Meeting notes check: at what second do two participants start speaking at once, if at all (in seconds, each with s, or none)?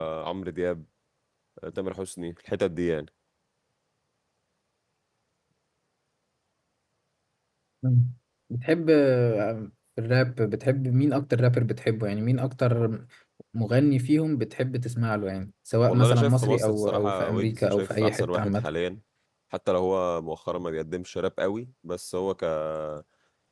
15.9 s